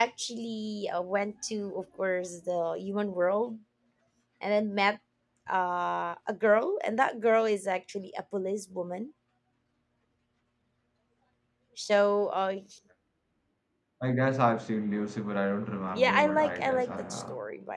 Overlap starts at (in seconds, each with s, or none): 15.9 s